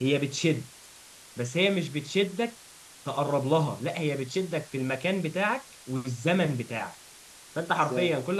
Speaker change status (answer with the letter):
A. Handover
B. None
B